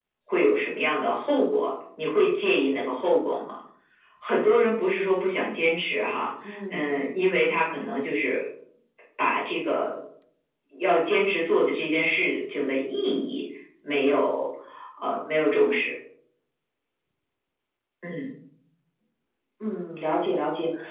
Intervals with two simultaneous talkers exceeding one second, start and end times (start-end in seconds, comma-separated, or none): none